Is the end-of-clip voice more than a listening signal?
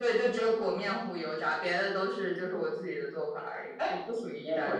Yes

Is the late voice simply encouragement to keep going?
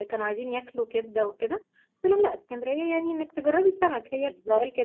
No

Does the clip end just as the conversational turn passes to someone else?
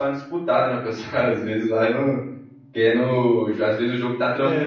No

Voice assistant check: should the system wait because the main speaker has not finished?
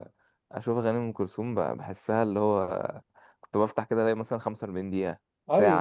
No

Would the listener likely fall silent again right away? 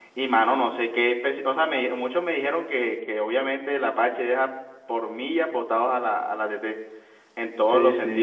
No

